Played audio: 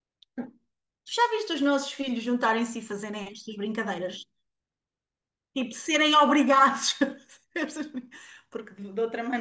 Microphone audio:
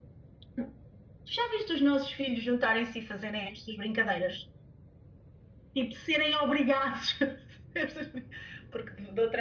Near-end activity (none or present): none